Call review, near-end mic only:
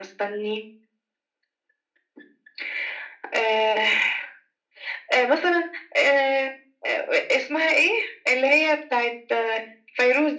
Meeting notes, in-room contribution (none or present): none